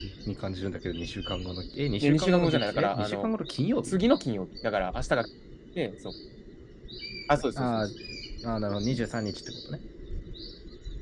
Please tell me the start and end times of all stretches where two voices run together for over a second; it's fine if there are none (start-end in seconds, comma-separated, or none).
2.0-3.3